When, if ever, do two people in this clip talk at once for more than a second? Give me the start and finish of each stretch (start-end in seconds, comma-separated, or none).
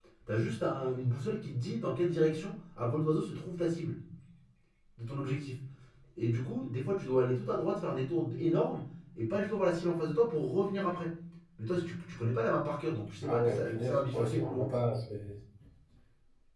13.2-14.7